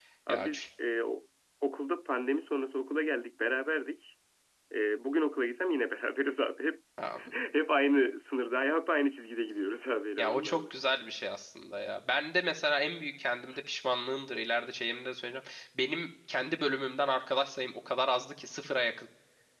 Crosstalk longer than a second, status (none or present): none